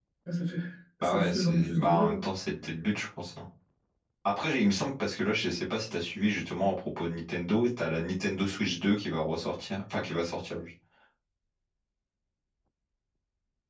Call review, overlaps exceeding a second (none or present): present